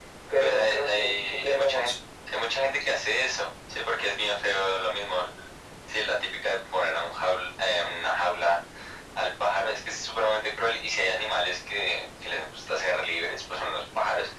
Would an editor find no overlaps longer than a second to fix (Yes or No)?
No